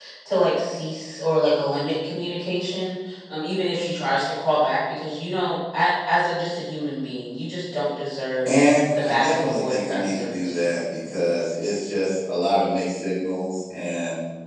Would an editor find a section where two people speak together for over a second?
Yes, from 8.9 s

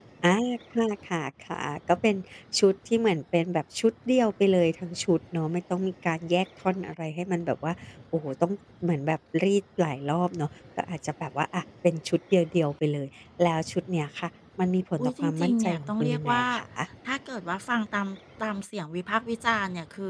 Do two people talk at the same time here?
Yes, from 15.0 s

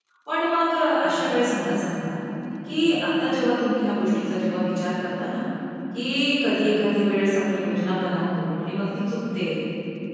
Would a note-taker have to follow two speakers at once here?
No

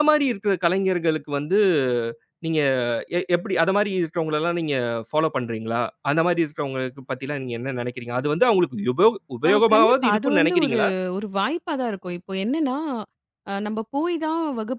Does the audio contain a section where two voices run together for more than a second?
Yes, from 9.4 s

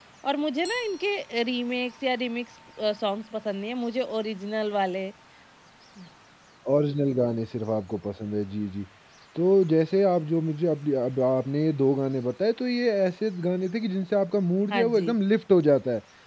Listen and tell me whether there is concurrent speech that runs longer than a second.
No

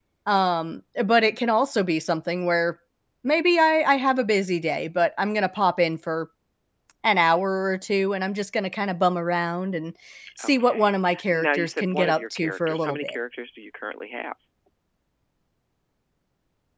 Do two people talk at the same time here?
Yes, from 10.4 s

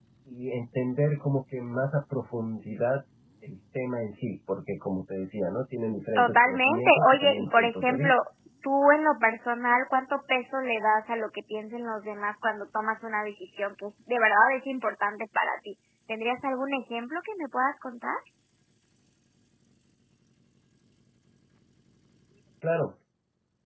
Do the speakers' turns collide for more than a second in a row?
Yes, from 6.2 s

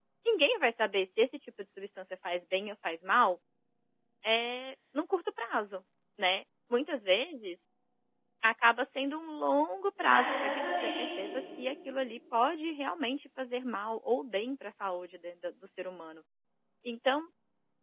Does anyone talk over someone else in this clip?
Yes, from 10.0 s

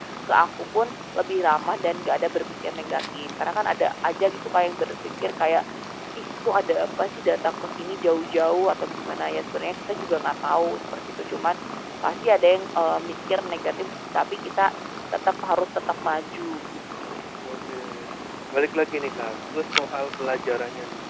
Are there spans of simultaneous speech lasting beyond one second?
No

